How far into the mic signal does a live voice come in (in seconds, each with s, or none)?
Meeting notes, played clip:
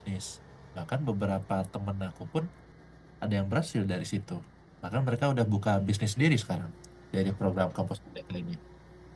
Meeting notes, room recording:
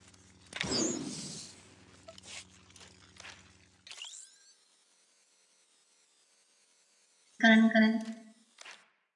7.4 s